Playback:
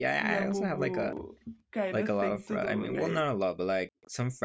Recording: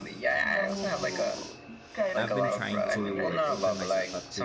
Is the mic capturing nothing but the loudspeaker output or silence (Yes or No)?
No